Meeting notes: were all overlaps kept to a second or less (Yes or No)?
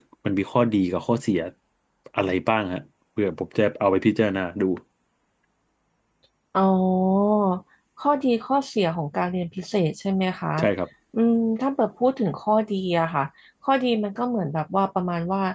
Yes